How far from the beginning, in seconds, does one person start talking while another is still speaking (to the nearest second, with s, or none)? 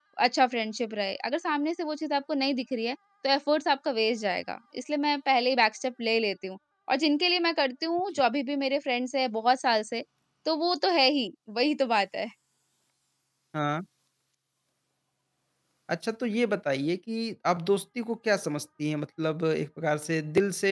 none